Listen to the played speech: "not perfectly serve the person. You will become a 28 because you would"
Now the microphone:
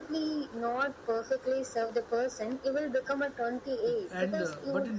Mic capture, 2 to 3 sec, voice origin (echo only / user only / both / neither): echo only